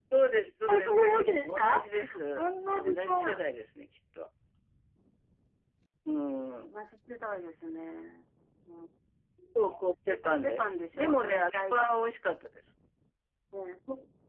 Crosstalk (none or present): present